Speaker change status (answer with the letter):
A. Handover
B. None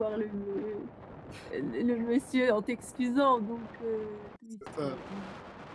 B